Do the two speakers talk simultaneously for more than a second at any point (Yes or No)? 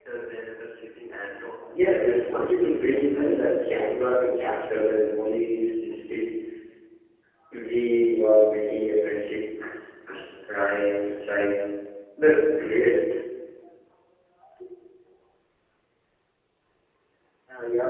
Yes